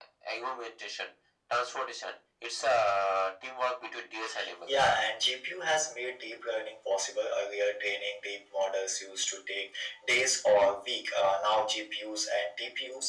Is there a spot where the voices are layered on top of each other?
No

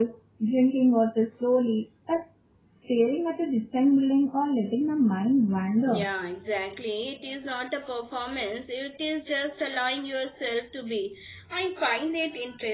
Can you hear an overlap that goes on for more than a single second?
No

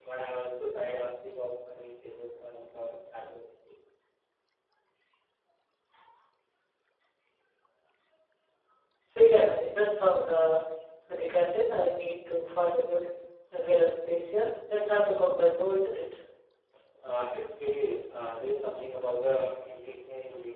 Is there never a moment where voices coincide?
Yes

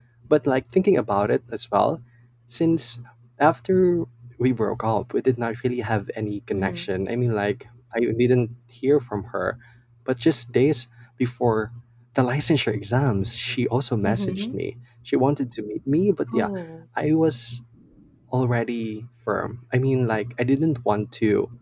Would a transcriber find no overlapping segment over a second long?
Yes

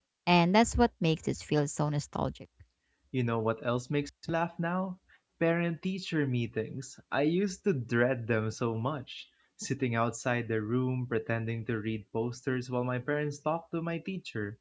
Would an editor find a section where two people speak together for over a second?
No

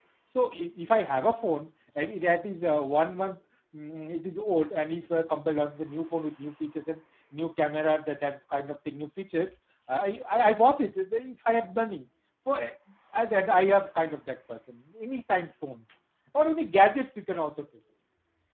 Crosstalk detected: No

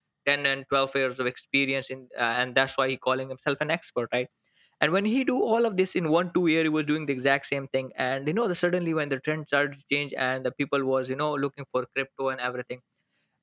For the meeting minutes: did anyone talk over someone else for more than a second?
No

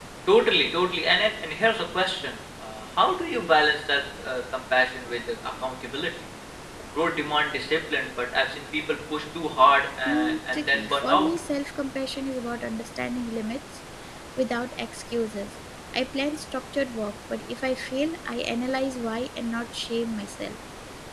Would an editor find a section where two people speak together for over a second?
Yes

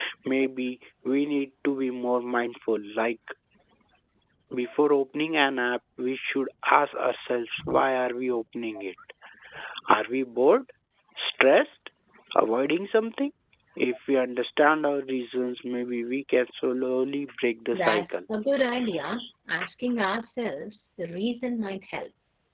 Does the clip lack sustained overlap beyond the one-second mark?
Yes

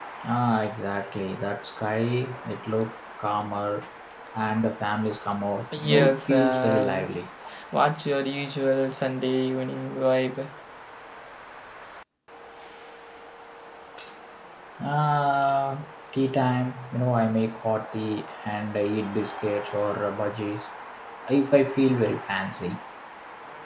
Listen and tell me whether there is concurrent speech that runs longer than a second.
Yes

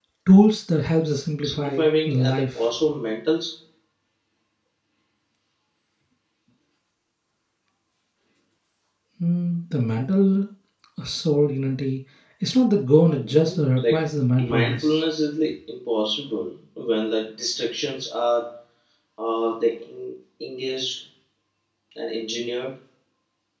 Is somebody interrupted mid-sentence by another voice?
Yes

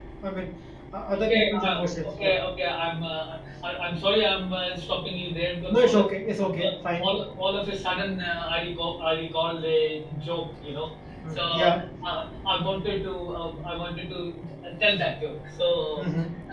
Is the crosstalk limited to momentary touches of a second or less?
No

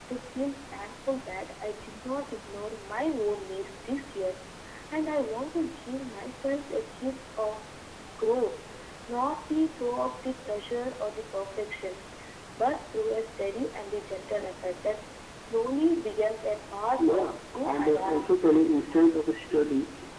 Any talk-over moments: Yes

